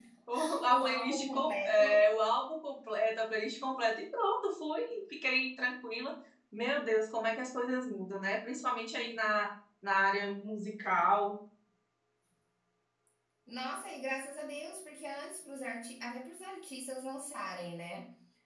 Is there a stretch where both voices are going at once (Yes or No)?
Yes